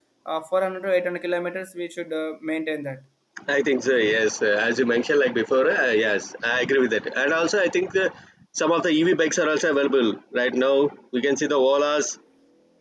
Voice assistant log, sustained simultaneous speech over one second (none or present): none